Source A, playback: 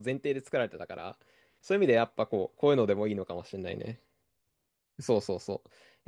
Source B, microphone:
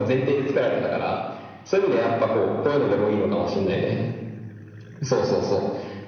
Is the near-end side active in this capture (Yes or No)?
No